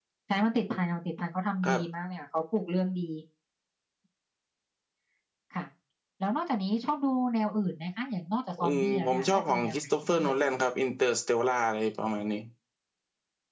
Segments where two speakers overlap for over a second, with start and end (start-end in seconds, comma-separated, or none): 8.6-10.4